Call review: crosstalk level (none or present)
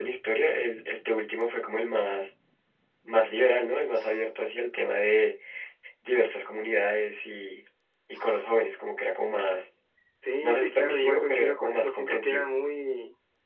present